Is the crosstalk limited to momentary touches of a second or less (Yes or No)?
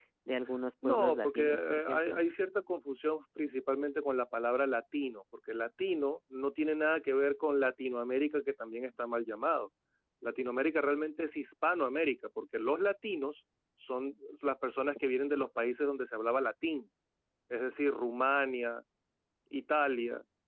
No